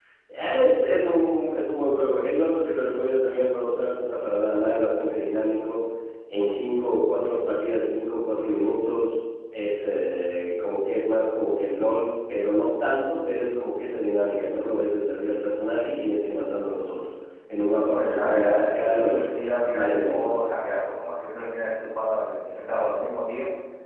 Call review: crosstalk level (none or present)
present